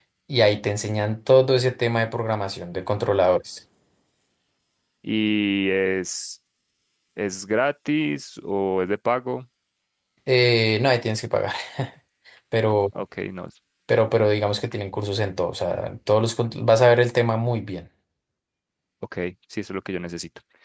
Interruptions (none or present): none